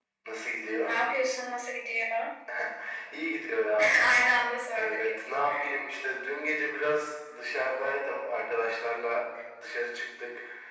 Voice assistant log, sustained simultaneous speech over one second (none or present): none